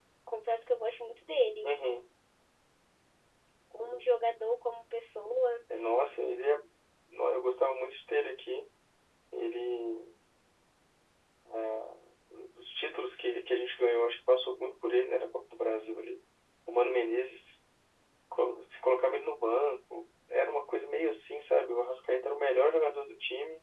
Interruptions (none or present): none